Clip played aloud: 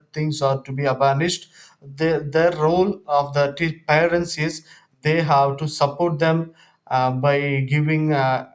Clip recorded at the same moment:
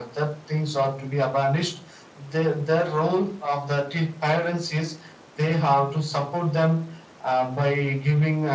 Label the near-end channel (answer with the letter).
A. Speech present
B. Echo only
B